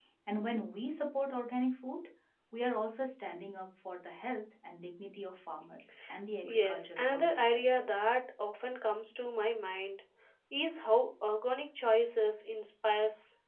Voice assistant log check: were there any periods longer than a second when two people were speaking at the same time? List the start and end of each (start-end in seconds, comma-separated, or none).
6.4-7.9